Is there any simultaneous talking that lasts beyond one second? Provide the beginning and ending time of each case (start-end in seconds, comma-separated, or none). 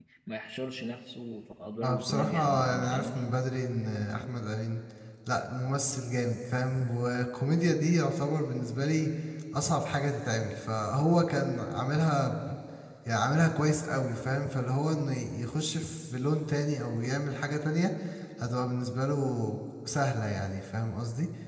1.8-3.3